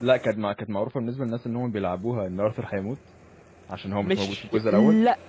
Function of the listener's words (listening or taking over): taking over